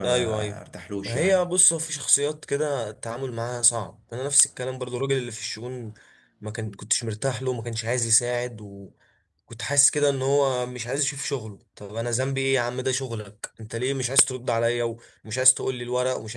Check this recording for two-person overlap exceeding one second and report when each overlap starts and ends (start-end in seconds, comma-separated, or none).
none